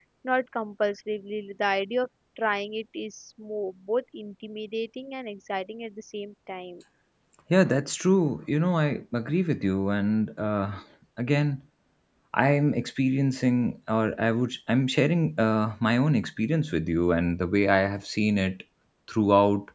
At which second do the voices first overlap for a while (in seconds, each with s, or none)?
none